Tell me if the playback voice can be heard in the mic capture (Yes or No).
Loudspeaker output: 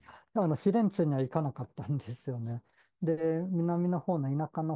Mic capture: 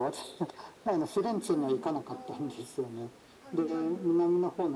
Yes